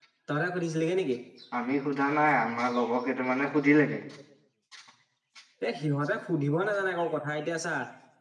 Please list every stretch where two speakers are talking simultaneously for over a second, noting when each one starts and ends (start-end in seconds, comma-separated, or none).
none